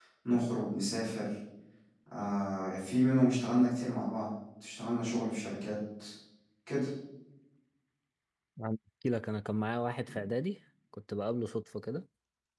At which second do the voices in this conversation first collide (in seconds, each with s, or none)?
none